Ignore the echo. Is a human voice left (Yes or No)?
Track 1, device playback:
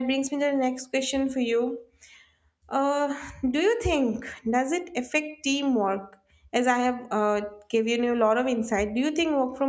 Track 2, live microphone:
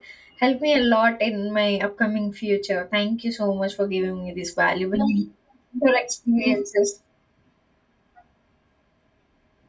Yes